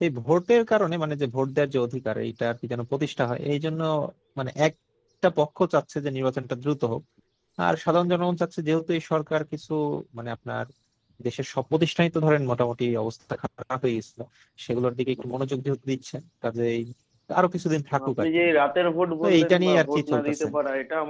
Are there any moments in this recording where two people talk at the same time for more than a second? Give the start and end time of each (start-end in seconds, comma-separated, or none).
19.2-20.5